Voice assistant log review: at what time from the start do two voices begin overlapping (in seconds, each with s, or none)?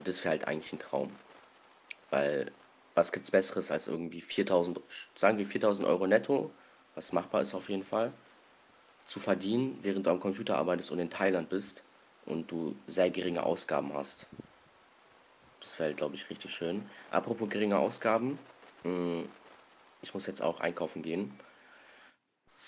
none